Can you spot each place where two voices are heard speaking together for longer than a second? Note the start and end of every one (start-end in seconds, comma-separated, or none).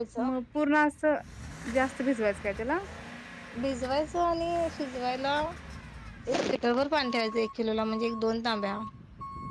none